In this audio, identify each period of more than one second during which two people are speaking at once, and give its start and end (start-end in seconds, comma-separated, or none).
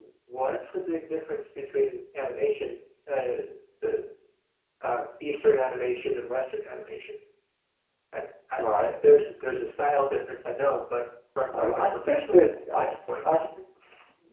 11.5-13.0